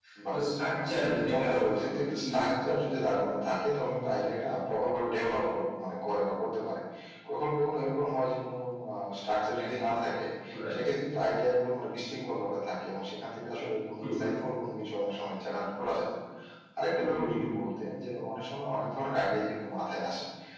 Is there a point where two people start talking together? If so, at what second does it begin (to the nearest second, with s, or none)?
1 s